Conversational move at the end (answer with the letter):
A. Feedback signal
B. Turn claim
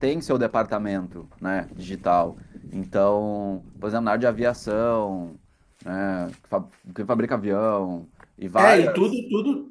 B